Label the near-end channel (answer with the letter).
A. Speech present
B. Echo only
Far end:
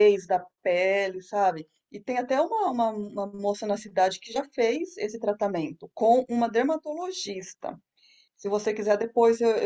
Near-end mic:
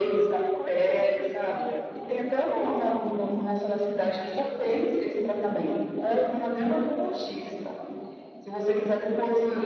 A